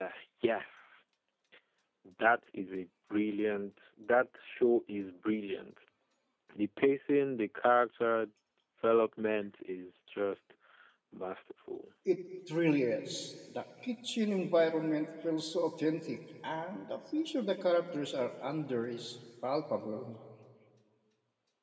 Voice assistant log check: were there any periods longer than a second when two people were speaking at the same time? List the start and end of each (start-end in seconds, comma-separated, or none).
none